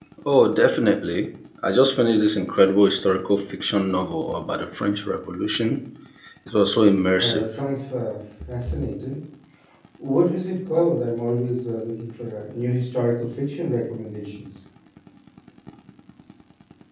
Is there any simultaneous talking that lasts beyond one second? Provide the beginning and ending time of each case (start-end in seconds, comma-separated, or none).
none